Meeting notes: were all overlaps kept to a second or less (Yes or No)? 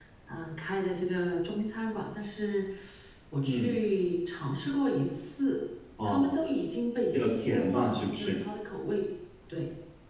No